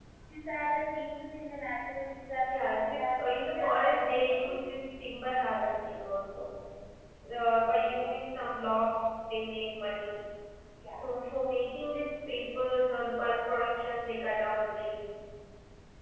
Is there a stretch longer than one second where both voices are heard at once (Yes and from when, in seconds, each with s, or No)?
Yes, from 2.4 s